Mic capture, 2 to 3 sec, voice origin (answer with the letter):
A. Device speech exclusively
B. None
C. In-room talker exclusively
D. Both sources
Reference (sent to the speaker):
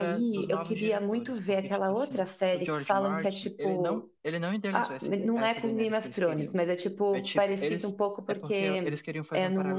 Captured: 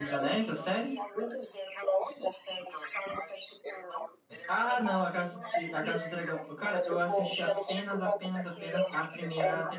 A